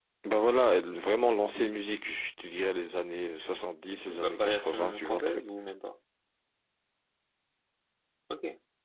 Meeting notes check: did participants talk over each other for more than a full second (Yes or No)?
Yes